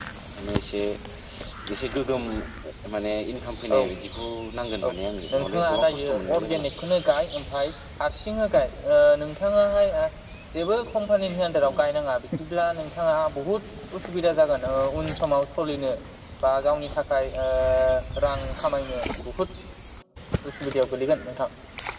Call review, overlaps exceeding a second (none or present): present